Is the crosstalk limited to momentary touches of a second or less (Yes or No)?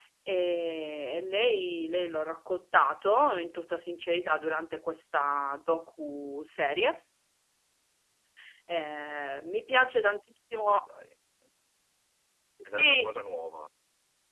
Yes